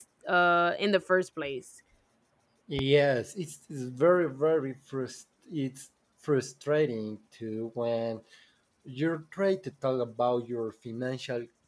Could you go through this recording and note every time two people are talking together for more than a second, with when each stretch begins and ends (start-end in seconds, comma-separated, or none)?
none